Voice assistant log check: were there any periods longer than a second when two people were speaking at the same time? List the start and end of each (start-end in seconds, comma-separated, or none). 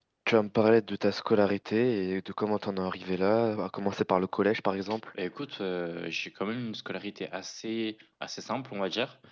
none